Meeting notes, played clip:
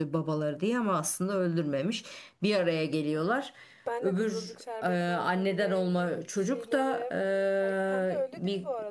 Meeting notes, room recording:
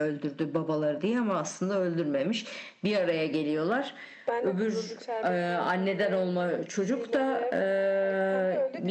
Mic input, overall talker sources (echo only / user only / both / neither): echo only